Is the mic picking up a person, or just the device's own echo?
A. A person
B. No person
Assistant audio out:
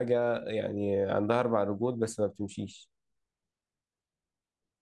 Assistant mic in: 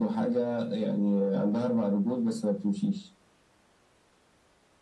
B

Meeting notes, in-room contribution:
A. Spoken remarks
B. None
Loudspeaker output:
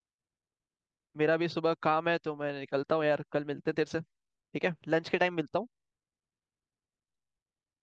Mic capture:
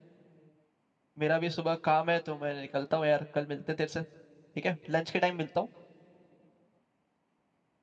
B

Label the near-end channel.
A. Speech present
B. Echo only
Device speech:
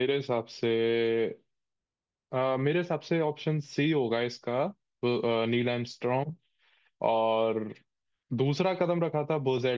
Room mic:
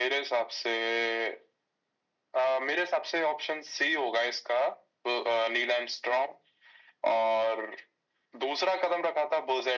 B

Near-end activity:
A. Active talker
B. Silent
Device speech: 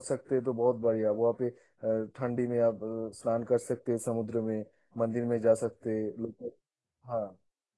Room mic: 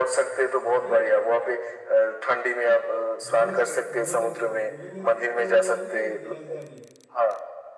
A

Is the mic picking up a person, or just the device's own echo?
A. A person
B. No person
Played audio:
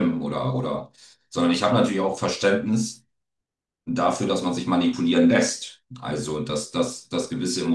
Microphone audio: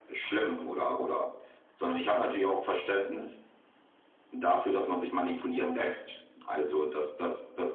B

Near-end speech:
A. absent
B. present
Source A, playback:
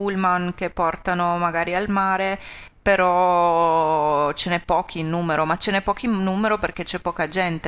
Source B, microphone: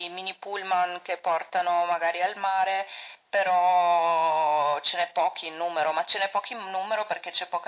A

